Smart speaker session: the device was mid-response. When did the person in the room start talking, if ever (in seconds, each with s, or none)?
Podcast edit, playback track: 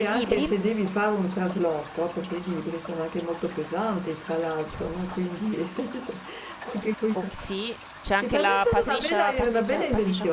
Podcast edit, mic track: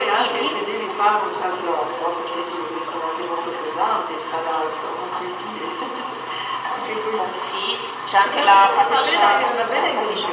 none